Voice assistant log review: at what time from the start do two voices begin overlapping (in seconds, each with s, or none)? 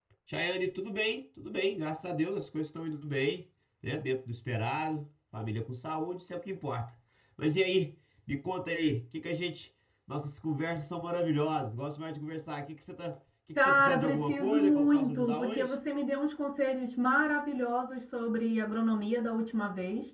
13.6 s